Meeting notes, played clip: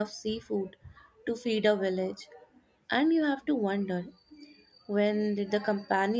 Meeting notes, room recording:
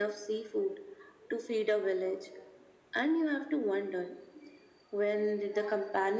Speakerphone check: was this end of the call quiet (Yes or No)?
Yes